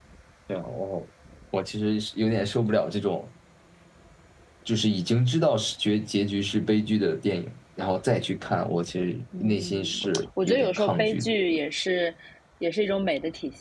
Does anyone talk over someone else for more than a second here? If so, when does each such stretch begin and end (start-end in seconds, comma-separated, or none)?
9.4-11.3